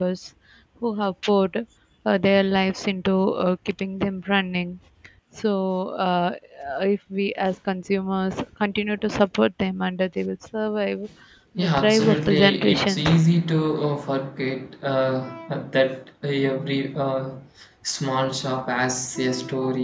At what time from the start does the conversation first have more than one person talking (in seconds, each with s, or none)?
11.6 s